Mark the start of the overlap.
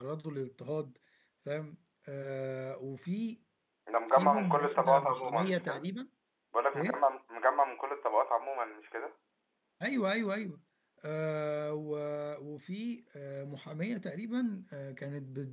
4 s

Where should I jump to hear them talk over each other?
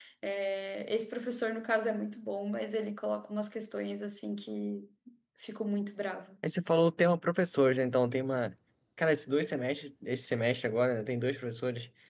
none

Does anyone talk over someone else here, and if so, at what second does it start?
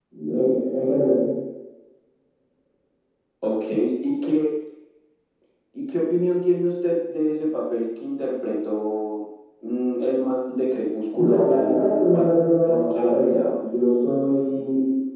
11 s

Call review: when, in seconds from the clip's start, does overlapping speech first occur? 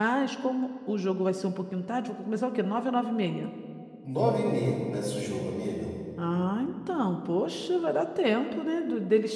none

